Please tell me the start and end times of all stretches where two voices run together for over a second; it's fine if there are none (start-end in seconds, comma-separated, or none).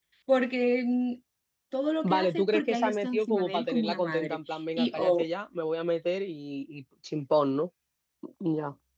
2.0-5.2